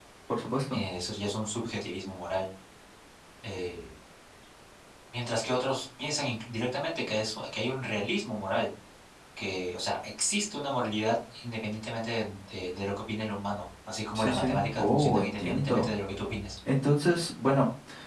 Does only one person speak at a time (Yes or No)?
No